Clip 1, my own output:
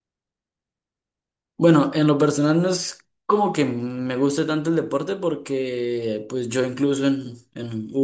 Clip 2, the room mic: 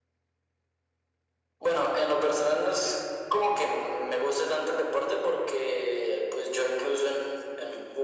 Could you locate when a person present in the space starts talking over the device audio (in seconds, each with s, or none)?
none